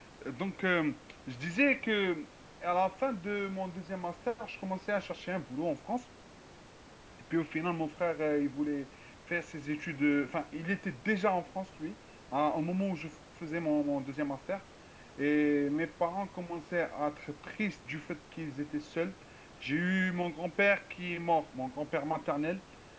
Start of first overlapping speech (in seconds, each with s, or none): none